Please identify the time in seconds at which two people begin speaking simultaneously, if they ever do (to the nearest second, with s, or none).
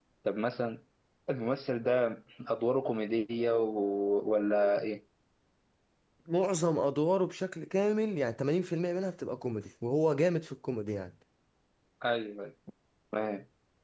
none